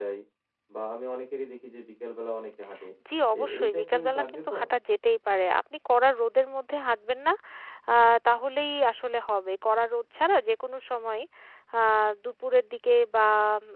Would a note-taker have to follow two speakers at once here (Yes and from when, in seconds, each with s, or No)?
Yes, from 3.4 s